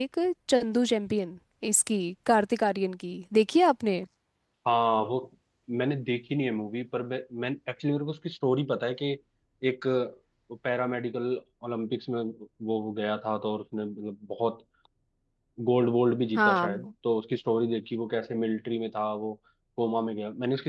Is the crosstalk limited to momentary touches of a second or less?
Yes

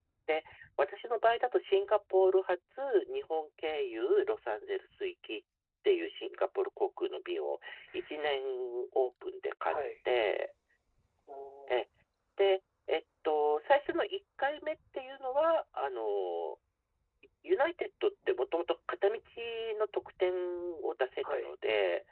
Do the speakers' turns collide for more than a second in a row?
No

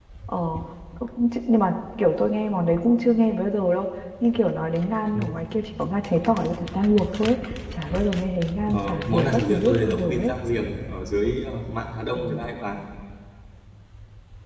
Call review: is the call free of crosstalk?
No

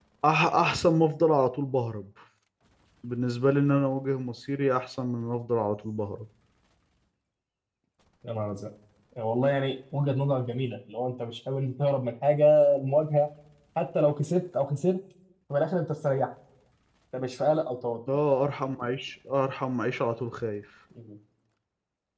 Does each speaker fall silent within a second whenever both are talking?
Yes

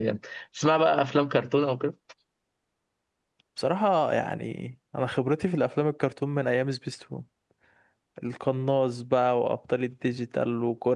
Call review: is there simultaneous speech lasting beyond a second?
No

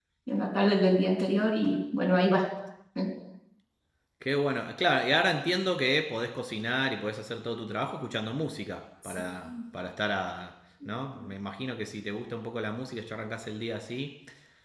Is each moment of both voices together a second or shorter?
Yes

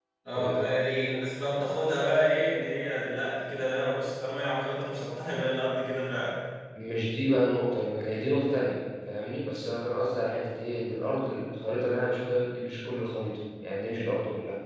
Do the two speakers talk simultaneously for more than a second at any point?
No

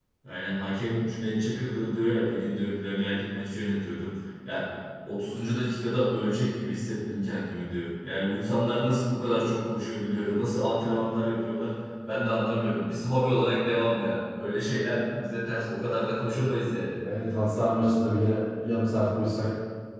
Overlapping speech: No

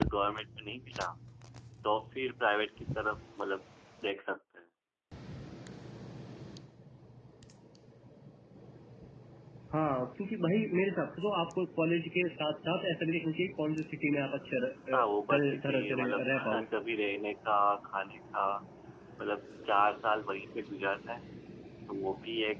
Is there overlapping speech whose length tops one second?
Yes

